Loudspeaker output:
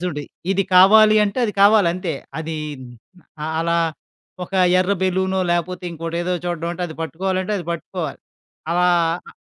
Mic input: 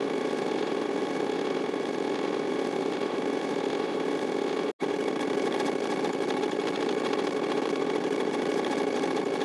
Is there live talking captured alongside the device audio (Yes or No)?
No